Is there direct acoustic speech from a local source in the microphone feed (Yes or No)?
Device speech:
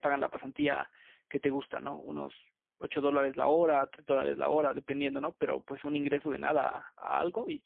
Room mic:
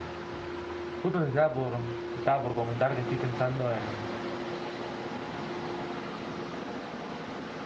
Yes